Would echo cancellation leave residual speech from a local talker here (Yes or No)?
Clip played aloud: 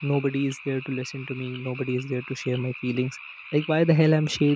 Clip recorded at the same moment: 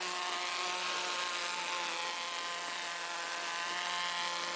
No